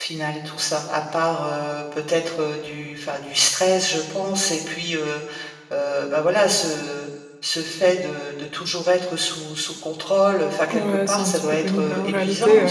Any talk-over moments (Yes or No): Yes